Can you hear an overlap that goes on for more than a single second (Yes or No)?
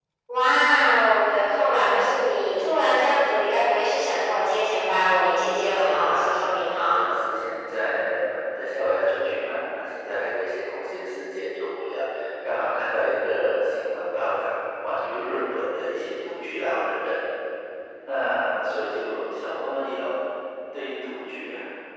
Yes